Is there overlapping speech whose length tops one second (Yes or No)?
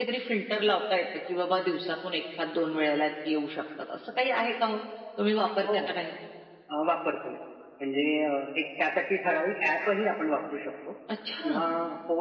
No